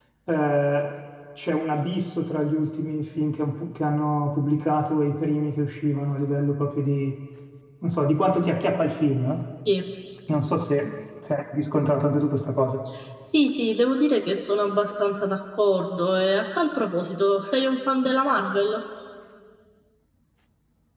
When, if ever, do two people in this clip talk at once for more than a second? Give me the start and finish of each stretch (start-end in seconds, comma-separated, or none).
none